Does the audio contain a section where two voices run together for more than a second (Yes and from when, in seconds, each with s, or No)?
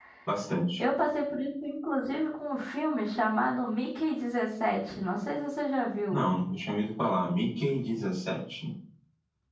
No